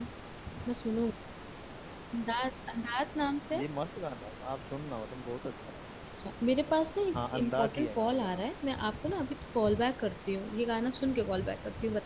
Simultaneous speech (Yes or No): Yes